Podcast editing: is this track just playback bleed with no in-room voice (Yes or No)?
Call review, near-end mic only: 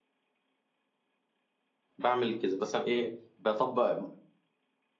No